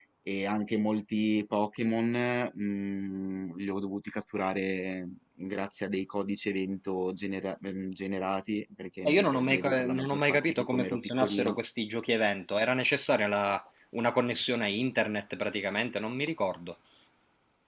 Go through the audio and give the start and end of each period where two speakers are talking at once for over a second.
9.1-11.6

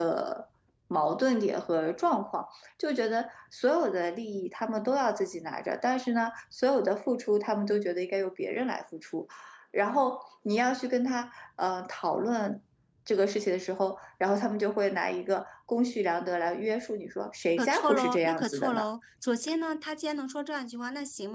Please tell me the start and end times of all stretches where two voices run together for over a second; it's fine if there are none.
17.6-18.8

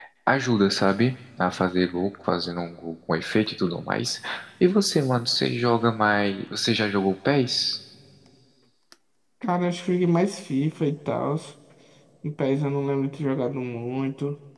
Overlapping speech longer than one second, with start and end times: none

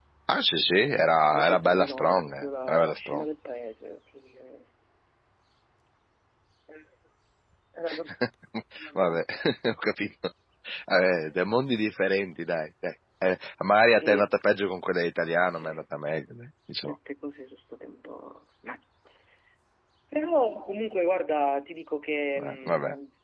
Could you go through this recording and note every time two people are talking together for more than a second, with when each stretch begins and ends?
0.7-3.2

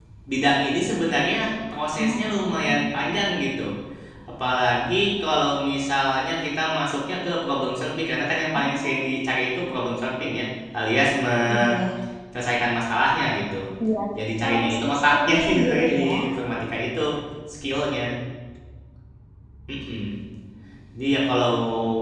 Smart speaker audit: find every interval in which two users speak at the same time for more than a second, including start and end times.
14.4-16.1

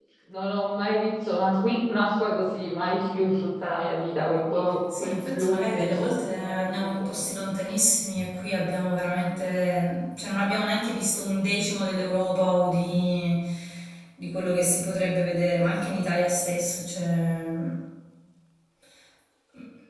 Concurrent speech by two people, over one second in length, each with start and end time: 5.0-7.2

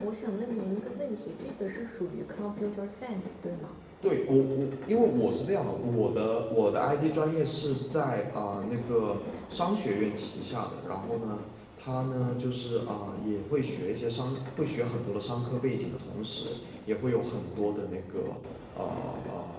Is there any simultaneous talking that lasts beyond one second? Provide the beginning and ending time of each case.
none

